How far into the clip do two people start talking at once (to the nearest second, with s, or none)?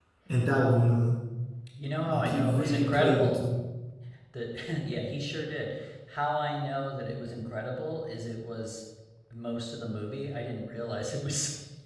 2 s